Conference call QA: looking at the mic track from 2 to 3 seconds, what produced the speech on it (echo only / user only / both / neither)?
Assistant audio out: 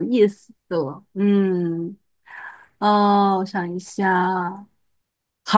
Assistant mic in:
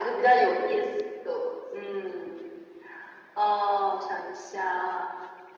echo only